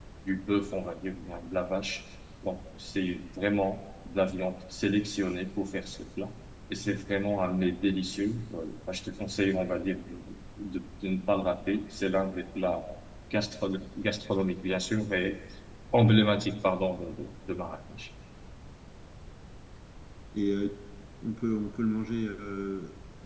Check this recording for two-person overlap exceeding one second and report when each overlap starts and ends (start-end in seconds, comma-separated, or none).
none